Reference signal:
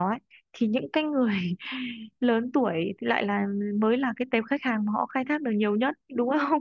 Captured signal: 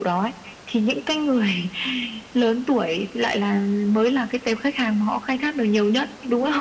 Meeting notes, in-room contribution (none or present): none